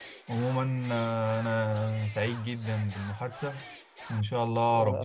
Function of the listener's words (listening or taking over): listening